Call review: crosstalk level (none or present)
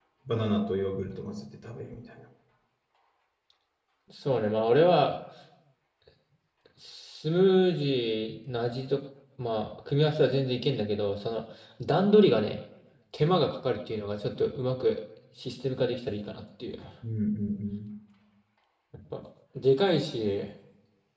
none